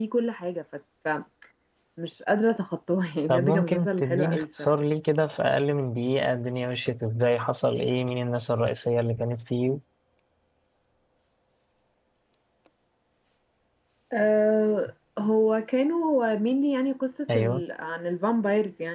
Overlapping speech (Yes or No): Yes